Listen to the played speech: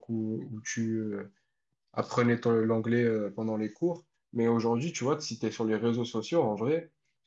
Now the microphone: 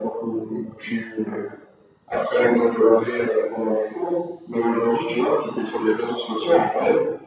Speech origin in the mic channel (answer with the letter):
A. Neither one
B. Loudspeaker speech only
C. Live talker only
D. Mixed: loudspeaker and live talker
B